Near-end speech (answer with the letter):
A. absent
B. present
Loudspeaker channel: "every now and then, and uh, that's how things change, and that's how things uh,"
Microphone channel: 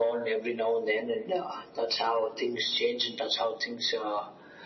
A